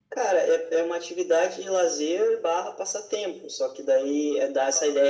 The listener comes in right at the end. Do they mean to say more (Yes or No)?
No